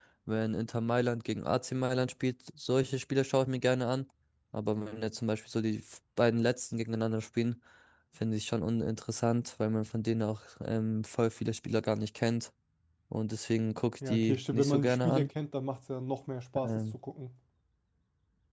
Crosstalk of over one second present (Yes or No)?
Yes